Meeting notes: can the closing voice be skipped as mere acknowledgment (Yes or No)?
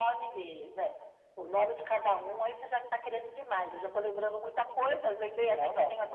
No